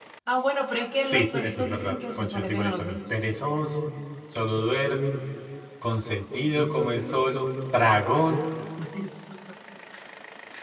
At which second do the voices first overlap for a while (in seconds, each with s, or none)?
1.0 s